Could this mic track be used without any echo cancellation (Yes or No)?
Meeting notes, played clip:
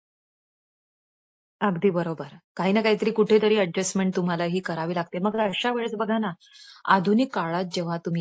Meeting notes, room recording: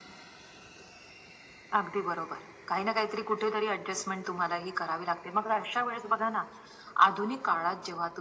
No